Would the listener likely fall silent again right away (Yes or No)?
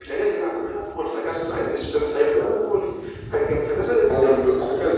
No